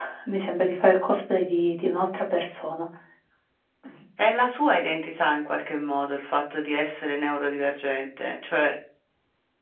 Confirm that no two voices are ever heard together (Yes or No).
Yes